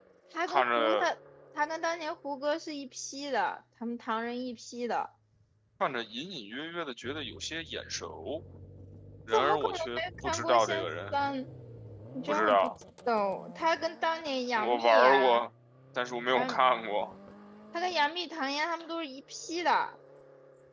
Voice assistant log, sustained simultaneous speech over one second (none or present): present